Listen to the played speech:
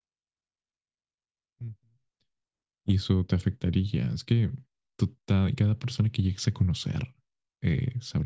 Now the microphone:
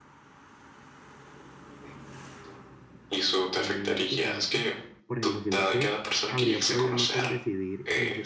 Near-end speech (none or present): present